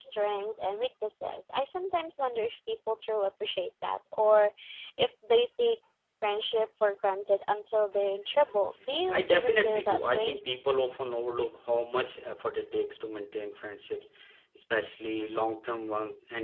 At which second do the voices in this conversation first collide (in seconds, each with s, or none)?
9.1 s